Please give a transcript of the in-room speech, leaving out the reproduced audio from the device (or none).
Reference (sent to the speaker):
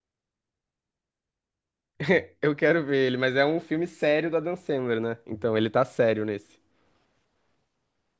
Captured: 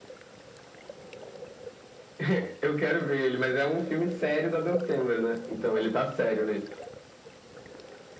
none